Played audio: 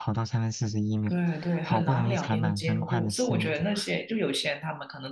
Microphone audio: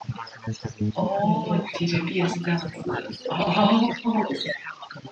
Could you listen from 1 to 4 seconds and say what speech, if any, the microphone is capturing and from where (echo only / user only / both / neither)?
both